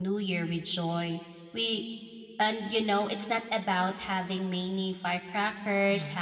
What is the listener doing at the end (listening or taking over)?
listening